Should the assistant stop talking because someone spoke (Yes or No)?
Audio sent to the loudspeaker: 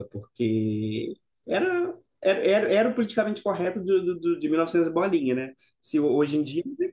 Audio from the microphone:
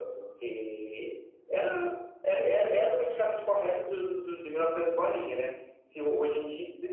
No